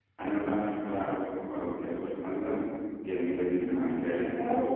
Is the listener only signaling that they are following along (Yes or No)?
No